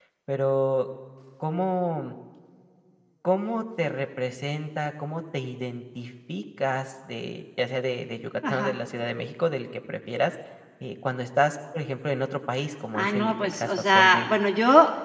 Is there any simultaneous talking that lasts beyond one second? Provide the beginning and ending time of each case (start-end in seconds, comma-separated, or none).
12.9-14.4